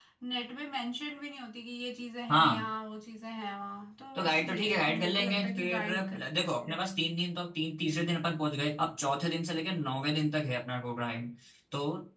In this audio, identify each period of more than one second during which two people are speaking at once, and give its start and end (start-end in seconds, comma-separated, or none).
4.2-6.2